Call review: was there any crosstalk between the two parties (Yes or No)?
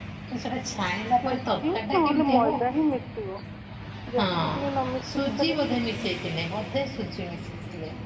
Yes